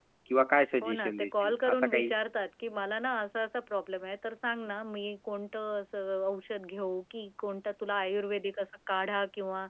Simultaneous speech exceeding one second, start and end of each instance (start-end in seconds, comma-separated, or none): 0.8-2.1